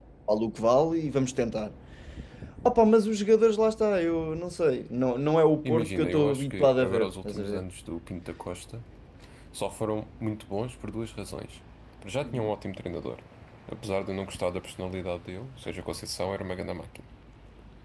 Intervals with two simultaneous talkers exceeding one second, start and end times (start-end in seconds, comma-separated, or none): 5.6-7.6